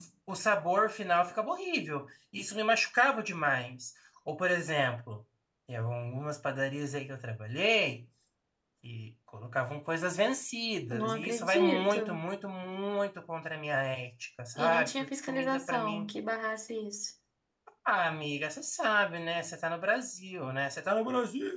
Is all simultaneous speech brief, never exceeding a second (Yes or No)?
No